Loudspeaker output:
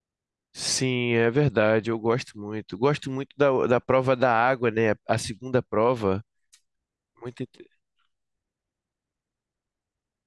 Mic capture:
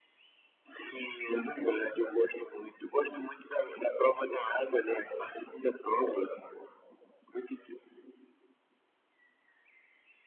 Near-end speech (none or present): none